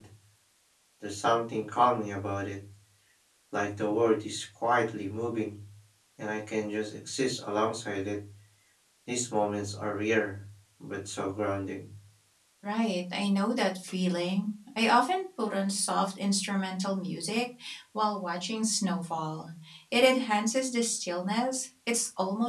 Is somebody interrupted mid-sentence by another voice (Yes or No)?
No